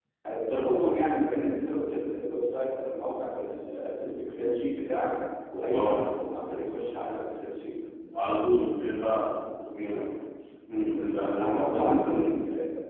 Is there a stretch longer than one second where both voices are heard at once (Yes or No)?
Yes